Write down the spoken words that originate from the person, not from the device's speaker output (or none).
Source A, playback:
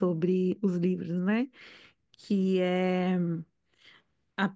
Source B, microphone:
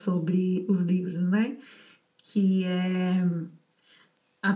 none